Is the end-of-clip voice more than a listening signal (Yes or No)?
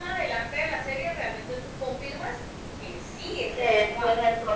Yes